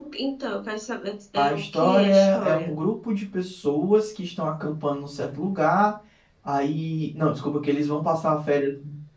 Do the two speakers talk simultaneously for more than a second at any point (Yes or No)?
Yes